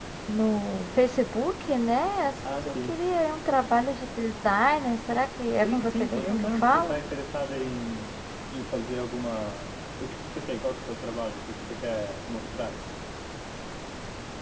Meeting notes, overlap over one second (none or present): present